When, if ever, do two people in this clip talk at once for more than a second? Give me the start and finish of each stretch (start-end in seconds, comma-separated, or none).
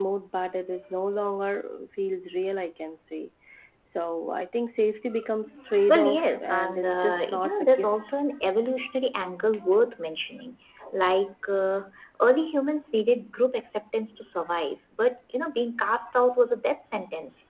5.9-7.9